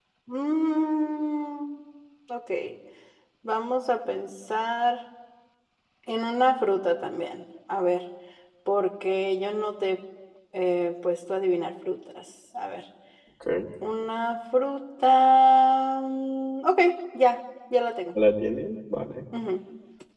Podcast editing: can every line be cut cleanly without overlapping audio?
Yes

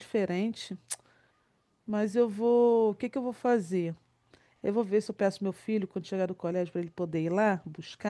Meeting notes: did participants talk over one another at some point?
No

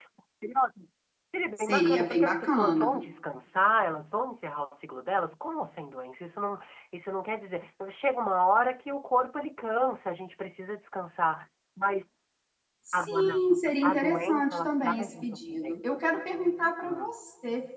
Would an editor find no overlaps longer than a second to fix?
No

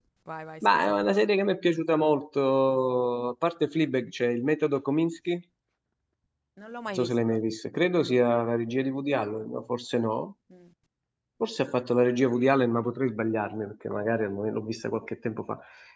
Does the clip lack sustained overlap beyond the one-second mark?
Yes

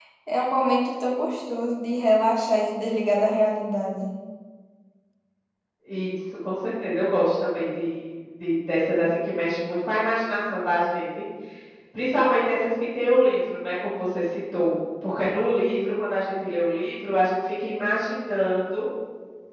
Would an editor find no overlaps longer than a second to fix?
Yes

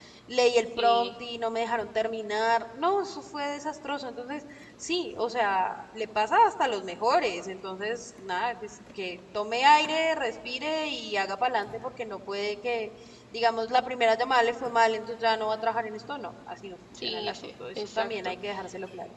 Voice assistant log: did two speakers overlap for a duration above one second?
Yes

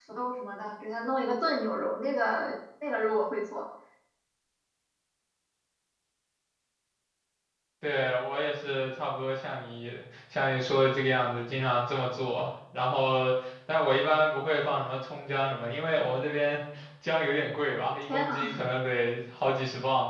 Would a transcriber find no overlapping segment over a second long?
Yes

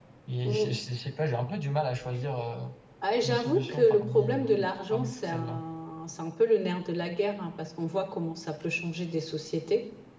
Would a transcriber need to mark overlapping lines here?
Yes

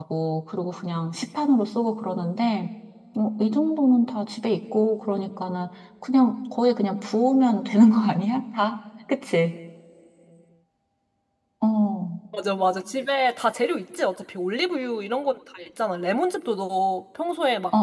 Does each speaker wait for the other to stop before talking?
Yes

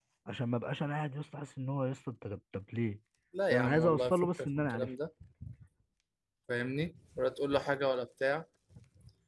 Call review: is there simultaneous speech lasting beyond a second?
Yes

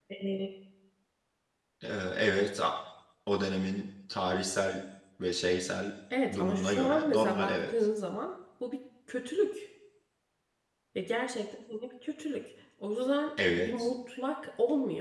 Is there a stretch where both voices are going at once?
Yes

